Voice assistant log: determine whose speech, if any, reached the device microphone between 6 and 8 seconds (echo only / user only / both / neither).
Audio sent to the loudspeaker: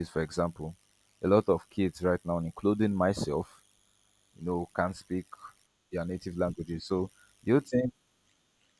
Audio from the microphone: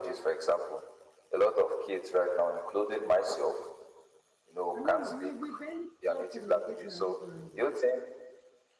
both